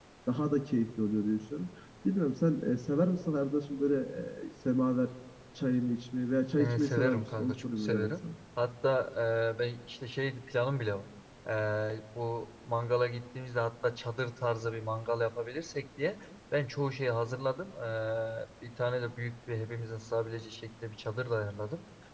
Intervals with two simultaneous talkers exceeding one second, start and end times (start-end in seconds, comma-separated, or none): 6.6-8.1